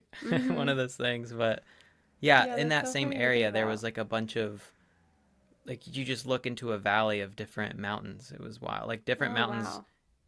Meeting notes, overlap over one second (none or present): present